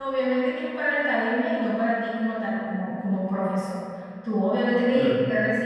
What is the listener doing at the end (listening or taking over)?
listening